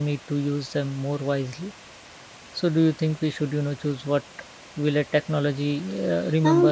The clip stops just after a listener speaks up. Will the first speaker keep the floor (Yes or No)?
No